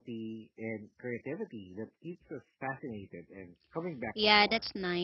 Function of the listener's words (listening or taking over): taking over